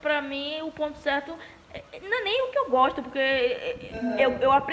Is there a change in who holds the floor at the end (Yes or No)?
No